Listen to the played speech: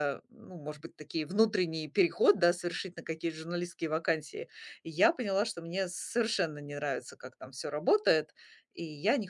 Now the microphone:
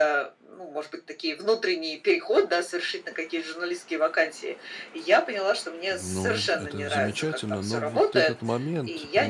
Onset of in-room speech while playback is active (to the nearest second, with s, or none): 6 s